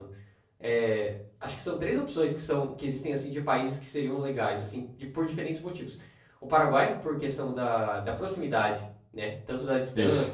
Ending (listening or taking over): listening